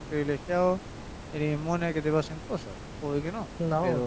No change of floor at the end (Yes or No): Yes